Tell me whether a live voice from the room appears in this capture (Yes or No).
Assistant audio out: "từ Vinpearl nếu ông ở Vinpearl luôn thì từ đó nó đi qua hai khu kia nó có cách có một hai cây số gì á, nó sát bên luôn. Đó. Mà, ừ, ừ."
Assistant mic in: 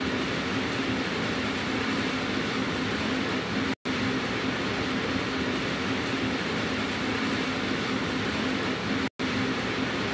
No